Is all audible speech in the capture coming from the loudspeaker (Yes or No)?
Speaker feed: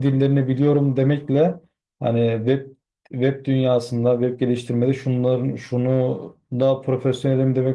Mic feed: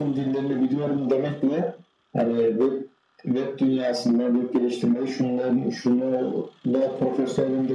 Yes